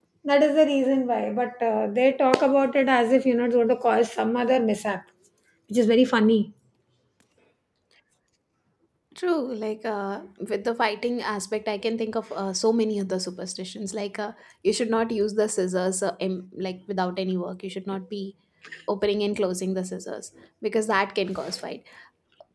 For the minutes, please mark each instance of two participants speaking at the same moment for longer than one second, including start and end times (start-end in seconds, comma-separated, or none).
none